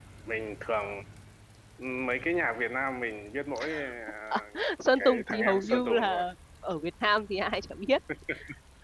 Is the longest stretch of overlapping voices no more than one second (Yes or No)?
No